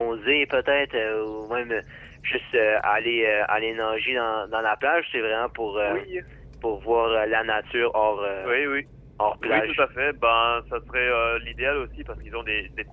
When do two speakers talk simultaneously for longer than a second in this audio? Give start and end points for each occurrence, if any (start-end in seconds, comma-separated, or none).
none